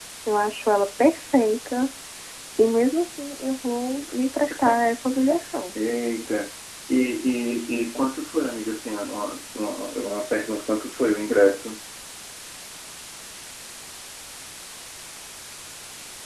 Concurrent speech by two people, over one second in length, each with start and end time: none

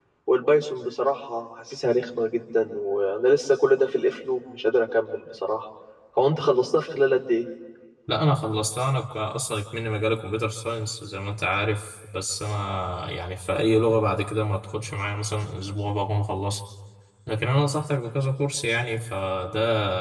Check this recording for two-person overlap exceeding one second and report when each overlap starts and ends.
none

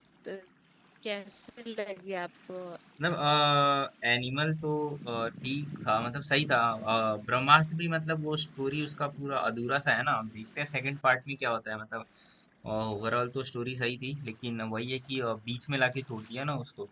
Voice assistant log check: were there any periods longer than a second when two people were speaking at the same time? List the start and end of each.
none

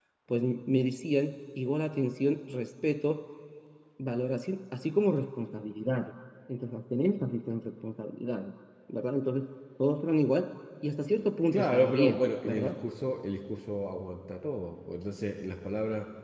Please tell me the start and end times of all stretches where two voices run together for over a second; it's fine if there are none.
11.5-12.8

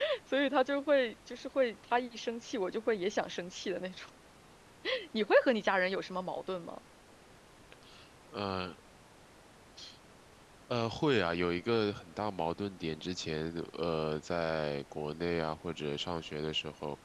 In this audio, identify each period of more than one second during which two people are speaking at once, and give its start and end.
none

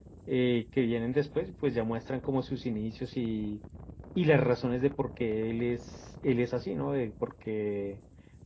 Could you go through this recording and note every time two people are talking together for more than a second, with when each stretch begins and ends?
none

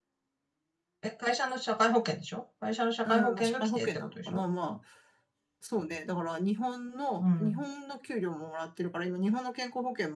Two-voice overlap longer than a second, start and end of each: 3.0-4.4

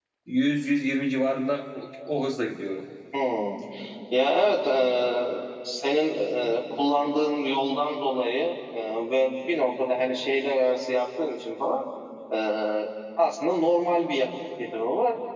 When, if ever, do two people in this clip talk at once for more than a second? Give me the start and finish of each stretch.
none

